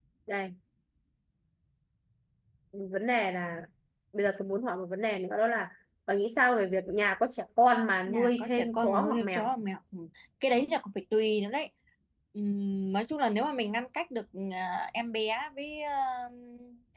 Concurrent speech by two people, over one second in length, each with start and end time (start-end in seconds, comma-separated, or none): 8.1-9.5